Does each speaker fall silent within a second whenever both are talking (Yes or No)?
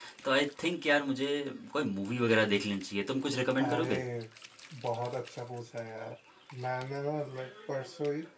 Yes